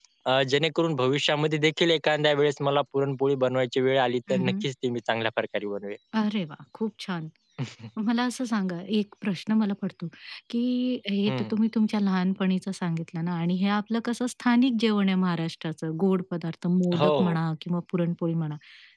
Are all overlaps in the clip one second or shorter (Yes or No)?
Yes